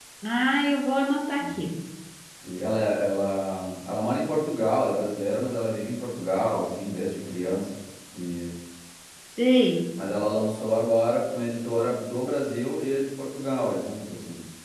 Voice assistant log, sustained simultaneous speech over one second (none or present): none